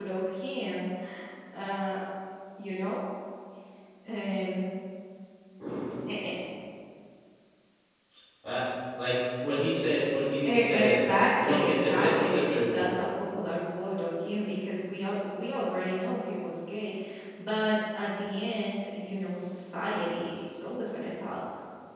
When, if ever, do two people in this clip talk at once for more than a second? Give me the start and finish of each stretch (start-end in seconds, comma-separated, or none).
10.4-13.0